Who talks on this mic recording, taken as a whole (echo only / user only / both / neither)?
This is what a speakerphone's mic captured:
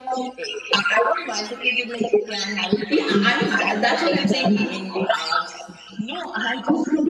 both